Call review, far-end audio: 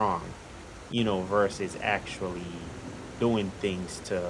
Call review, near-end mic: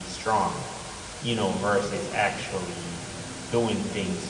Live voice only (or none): none